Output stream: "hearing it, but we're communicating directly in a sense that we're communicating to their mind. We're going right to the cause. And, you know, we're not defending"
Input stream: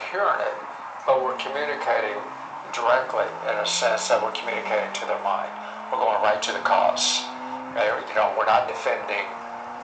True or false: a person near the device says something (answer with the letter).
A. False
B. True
A